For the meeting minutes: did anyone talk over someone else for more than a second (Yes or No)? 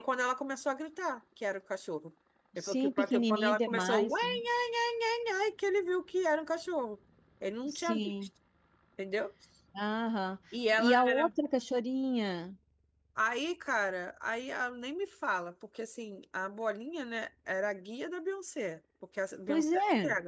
Yes